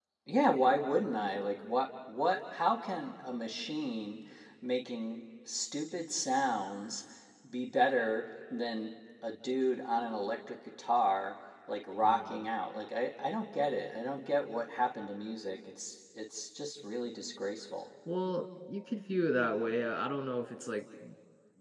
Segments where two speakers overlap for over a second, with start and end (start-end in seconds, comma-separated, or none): none